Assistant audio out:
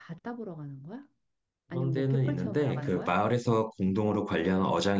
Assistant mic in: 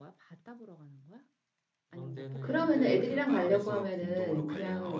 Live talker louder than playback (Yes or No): Yes